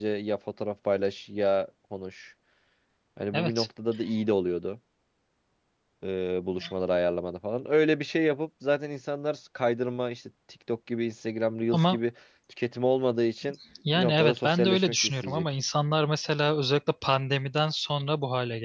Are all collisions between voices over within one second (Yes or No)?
No